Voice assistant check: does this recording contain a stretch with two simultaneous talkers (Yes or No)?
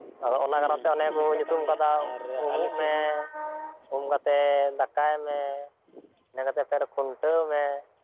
Yes